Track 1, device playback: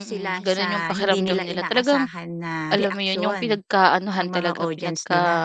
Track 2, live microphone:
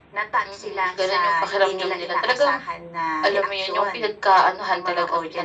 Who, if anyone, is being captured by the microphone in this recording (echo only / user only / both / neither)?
echo only